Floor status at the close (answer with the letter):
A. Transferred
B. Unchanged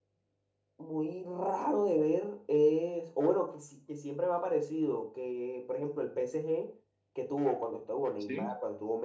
B